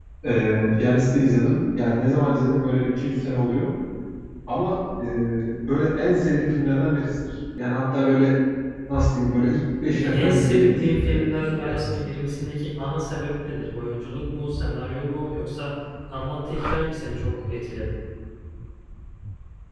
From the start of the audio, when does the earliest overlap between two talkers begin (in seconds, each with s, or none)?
9.9 s